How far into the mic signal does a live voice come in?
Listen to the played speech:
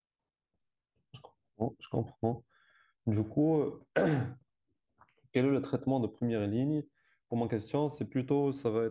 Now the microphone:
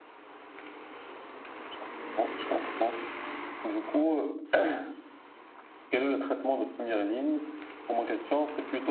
none

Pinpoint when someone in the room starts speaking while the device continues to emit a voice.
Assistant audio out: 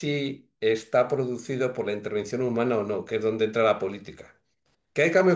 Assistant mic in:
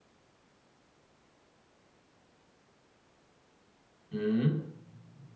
4.1 s

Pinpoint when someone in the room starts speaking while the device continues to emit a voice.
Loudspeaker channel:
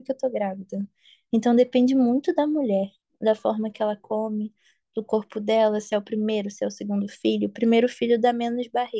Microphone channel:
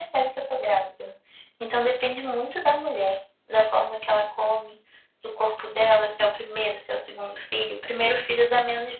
none

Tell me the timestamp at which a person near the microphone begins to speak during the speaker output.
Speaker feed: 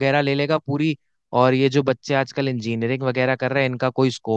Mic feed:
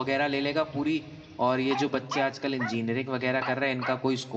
none

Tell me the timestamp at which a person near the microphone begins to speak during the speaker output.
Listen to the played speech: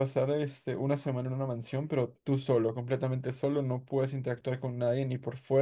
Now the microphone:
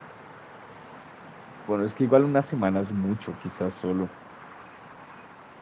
1.7 s

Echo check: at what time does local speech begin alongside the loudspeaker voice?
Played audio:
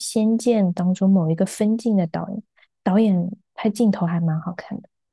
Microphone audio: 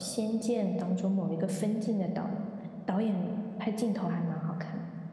none

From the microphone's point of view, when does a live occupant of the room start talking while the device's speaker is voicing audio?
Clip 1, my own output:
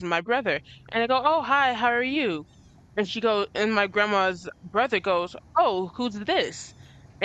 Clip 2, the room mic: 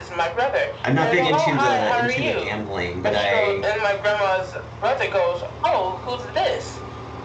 0.8 s

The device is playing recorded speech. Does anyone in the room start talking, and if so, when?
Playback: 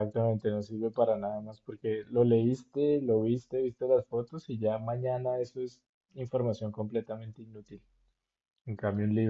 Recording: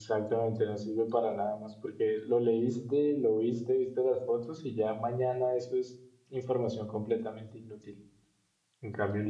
none

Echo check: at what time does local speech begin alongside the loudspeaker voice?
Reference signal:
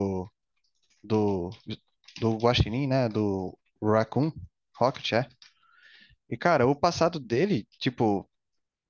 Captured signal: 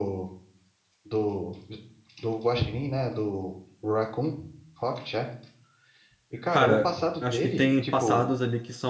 6.5 s

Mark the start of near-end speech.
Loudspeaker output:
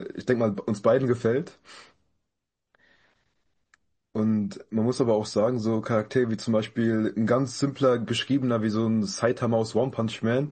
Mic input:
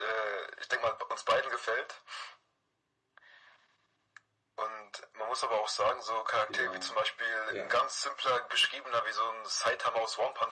6.5 s

